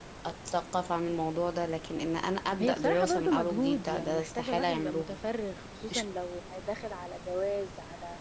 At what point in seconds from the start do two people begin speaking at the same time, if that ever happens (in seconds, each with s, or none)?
2.6 s